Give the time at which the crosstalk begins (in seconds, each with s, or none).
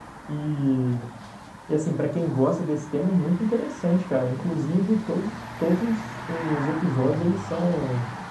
none